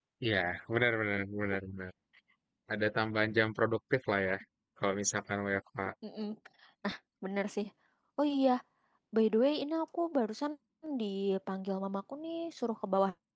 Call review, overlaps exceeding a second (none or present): none